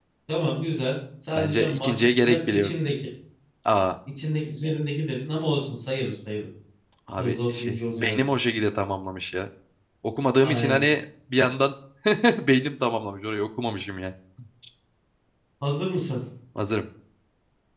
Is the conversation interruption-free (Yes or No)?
No